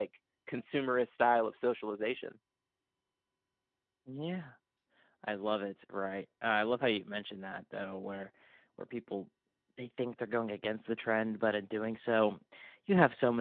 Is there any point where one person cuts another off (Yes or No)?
No